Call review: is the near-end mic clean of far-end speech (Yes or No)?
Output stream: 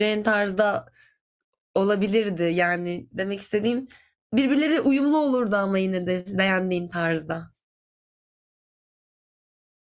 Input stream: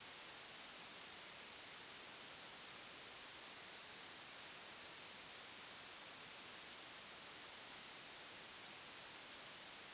Yes